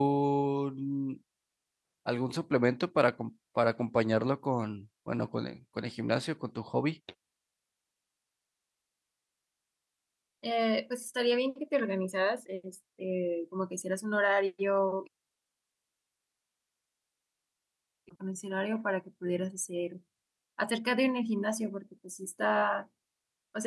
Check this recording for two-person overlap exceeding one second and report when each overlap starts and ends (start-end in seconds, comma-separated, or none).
none